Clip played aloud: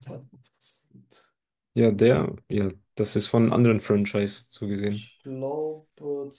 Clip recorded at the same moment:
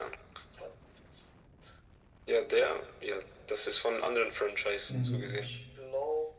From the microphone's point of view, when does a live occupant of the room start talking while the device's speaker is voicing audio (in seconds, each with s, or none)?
4.9 s